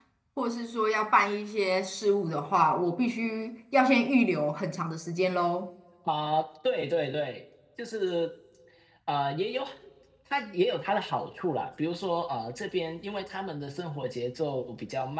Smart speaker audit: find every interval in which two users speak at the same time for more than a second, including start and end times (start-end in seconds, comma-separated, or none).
none